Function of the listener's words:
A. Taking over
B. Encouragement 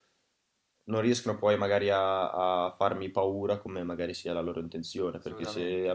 B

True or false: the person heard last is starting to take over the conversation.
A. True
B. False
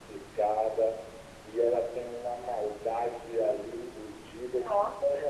B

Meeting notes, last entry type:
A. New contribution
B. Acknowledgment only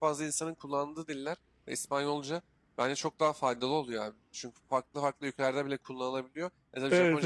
B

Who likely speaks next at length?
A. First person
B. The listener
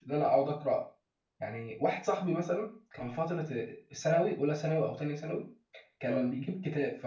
A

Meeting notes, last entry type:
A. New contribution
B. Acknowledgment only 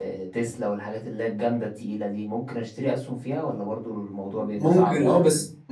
A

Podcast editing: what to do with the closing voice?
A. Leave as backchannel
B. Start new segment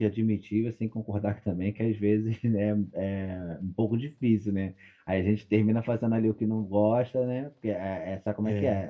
A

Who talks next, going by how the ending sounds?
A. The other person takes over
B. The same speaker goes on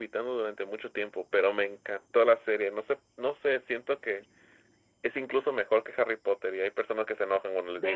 A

